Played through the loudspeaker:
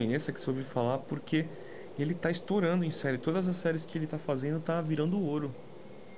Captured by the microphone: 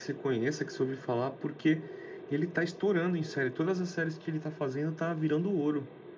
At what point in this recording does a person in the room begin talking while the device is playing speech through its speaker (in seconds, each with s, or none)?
none